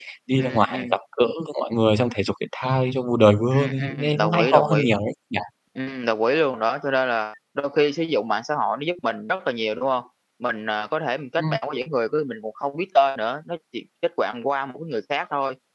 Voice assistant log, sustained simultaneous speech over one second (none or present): present